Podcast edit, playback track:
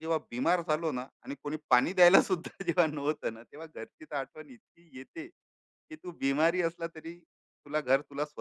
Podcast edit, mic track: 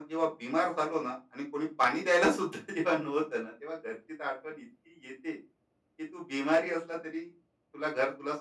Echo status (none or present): present